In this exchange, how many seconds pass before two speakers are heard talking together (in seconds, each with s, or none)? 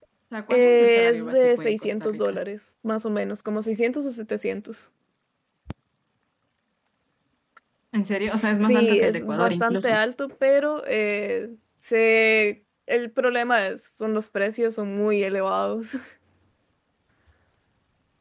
0.5 s